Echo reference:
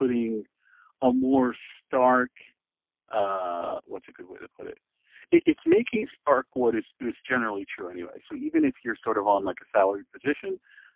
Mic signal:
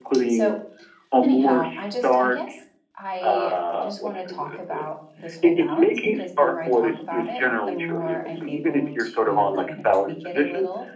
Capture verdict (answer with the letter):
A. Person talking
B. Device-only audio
A